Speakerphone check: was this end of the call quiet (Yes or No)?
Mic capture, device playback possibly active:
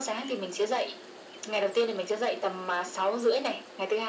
Yes